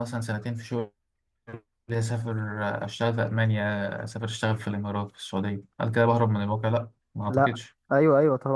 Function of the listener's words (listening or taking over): taking over